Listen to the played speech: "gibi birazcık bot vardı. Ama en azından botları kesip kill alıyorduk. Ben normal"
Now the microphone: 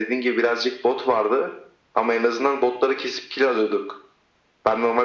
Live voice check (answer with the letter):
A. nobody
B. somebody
A